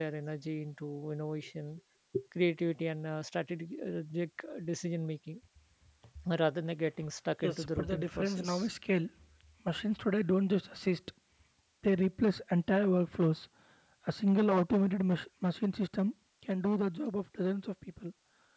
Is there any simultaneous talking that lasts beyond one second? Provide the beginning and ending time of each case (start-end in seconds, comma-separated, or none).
7.4-8.7